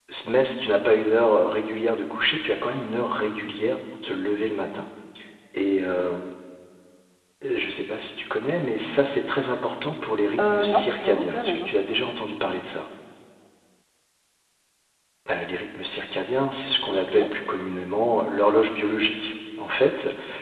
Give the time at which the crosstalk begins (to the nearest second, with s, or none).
10 s